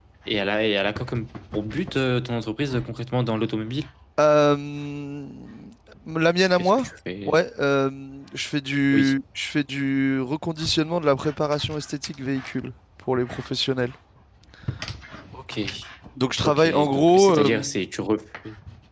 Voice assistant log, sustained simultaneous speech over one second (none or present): present